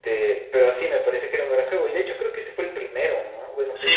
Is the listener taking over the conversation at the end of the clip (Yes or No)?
Yes